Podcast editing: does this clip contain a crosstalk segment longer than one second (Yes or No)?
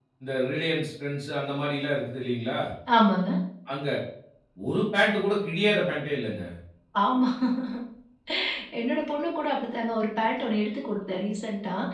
No